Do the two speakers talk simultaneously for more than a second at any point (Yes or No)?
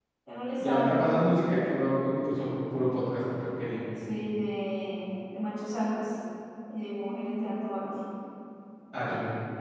No